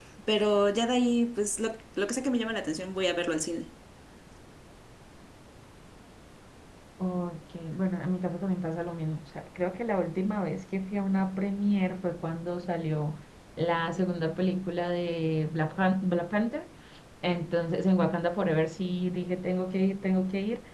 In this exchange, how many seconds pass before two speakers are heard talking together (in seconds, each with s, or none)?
none